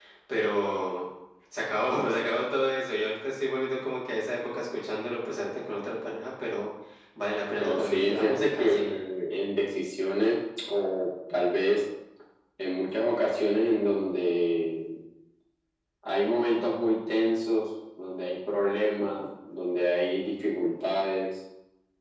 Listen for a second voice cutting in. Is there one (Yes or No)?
Yes